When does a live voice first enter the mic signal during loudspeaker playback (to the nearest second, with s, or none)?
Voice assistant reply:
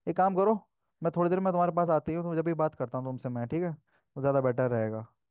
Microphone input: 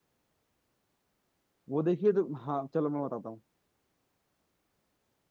2 s